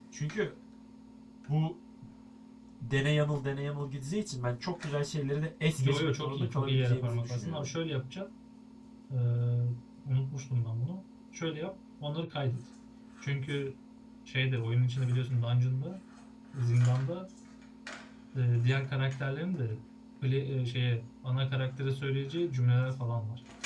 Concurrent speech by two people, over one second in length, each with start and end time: 5.8-7.7

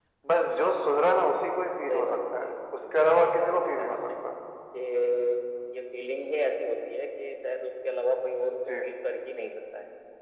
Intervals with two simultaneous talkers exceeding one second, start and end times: 1.9-4.1

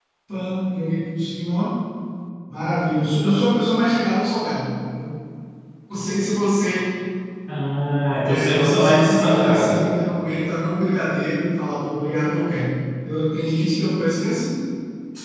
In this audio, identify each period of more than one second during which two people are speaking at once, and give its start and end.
8.2-9.8

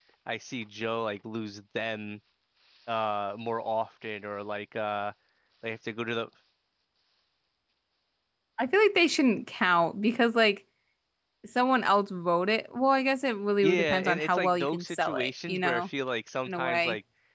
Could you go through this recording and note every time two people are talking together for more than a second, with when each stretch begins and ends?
13.6-15.9

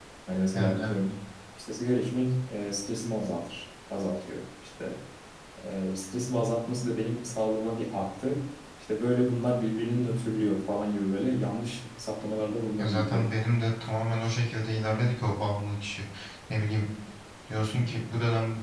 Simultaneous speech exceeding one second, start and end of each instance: none

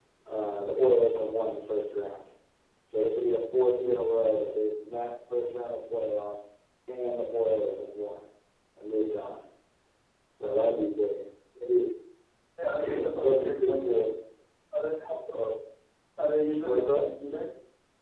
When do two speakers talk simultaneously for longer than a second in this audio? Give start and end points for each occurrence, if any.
12.8-14.1

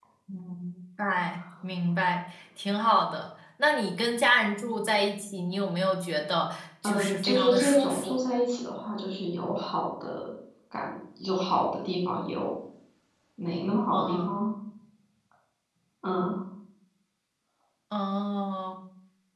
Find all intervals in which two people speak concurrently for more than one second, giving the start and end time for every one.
6.8-8.2

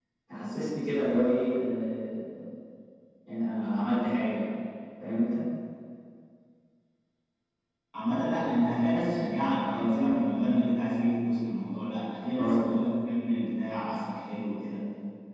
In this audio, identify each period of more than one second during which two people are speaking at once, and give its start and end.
none

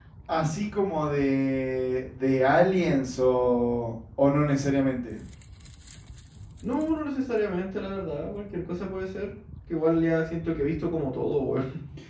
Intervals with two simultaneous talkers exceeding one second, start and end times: none

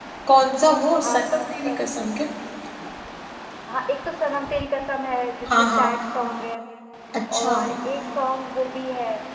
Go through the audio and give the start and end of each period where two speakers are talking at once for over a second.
none

